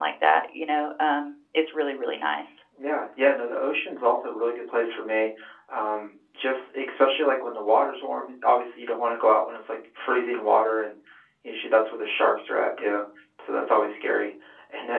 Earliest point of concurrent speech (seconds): none

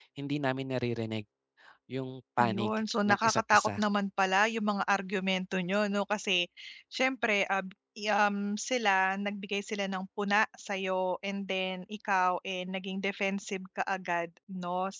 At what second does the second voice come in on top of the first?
2.4 s

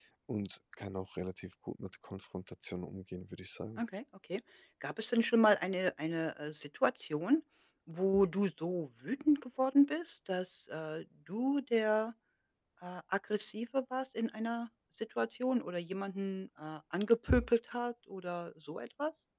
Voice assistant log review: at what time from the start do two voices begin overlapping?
none

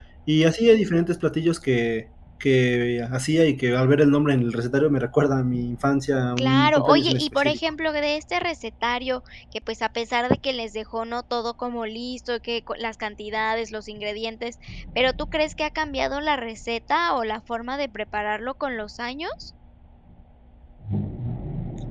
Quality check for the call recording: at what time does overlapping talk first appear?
6.4 s

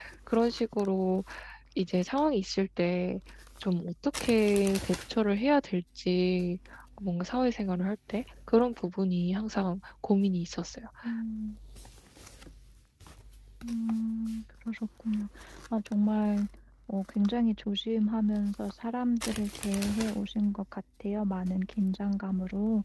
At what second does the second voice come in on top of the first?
none

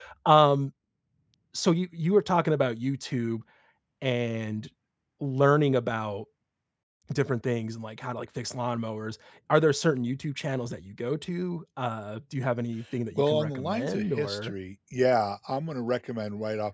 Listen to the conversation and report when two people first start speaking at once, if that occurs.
13.1 s

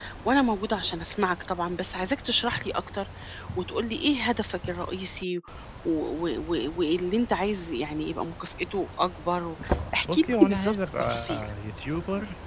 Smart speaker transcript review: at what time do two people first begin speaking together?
10.1 s

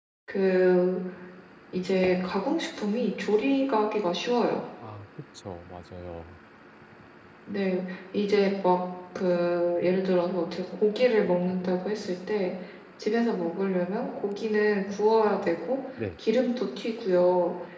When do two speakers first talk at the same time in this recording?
none

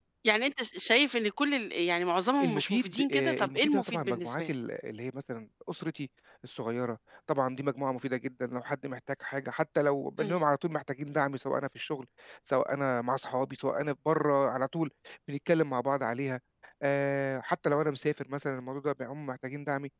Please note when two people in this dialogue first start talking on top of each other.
2.4 s

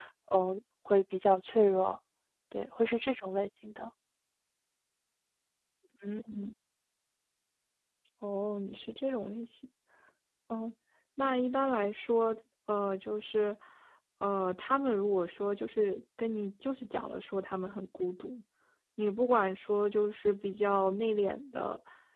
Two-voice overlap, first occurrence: none

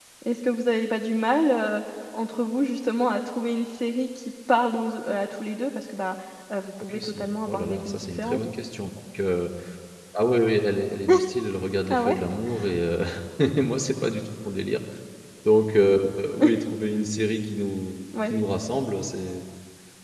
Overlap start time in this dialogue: 6.8 s

